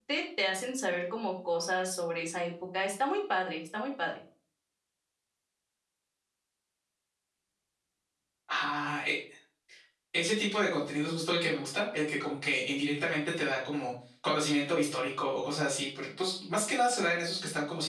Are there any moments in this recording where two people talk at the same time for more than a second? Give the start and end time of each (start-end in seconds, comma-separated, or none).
none